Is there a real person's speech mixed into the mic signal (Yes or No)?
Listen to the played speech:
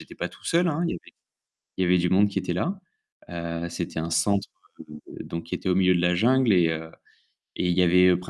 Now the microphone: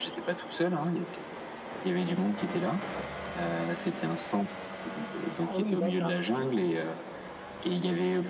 Yes